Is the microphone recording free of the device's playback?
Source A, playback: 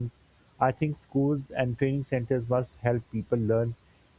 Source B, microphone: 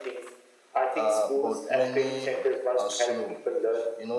No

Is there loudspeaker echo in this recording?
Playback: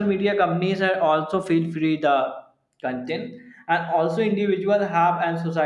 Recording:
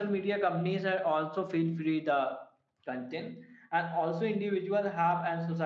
Yes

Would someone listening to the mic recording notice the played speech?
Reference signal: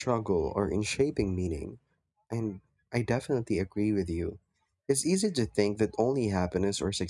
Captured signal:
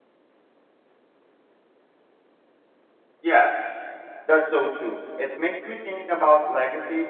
No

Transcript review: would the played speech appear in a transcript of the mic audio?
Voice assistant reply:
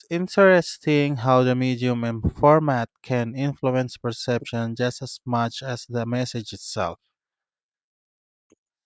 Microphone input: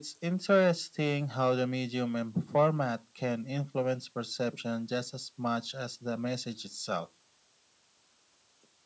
Yes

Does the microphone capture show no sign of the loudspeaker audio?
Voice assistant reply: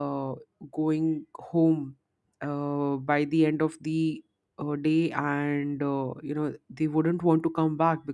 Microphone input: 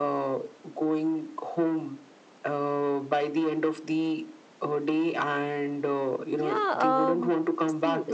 No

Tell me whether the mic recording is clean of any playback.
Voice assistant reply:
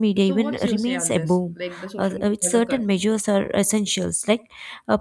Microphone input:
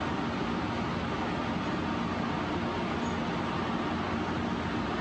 Yes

